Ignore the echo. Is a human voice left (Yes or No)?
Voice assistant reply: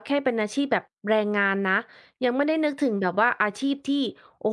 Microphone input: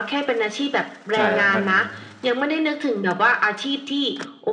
Yes